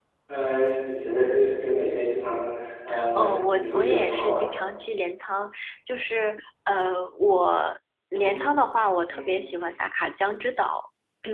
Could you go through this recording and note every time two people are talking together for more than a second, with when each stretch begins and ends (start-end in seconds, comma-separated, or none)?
3.1-4.4